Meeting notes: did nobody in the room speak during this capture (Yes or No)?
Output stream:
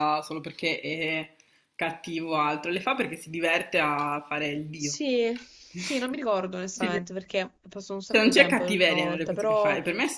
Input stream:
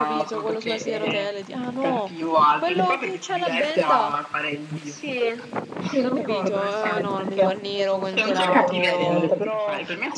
No